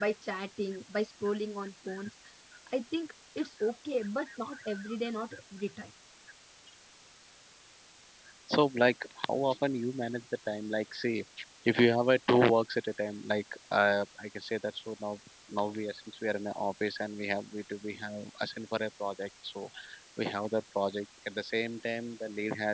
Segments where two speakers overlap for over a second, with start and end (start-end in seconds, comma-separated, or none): none